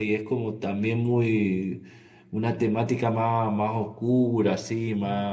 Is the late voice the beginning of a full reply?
No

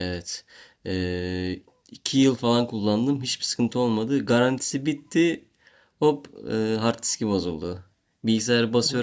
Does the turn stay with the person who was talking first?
Yes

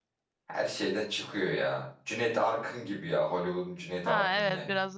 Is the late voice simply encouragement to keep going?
No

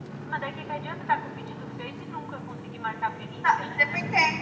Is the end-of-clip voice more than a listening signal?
Yes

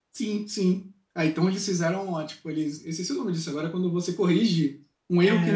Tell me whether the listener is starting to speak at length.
Yes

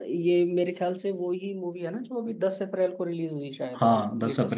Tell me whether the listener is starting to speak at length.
Yes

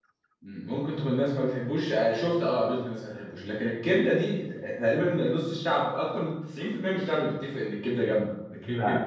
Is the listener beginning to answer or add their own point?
No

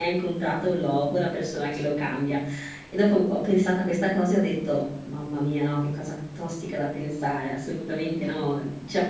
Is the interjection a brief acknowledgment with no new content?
Yes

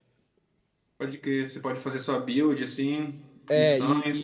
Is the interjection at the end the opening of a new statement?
Yes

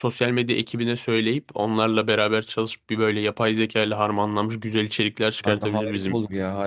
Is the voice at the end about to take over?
Yes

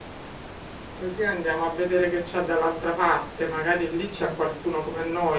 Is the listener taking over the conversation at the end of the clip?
No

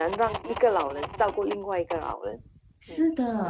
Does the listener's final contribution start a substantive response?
Yes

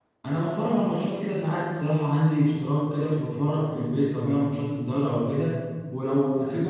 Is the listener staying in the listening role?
Yes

